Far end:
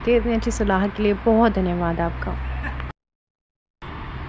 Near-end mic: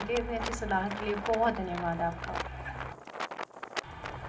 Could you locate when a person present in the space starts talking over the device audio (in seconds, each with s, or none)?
none